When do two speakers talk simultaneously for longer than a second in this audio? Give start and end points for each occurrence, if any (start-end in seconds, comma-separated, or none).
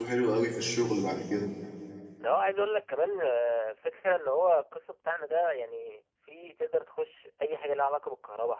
none